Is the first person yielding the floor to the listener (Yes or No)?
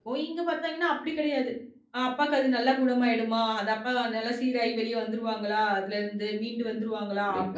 No